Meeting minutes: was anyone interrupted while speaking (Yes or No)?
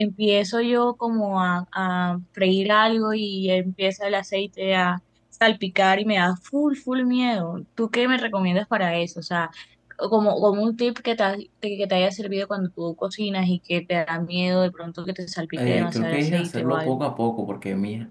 Yes